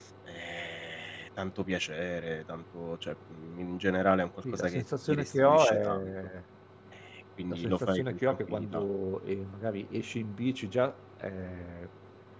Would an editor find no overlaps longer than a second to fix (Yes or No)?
No